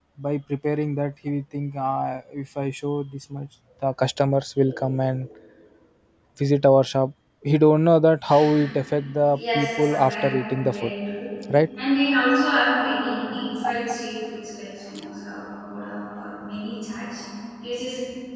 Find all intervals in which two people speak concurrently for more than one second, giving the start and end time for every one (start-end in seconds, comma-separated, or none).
9.3-10.9